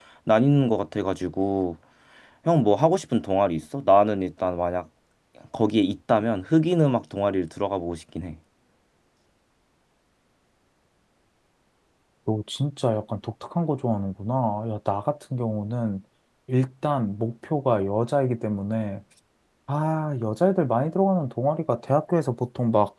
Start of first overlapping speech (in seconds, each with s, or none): none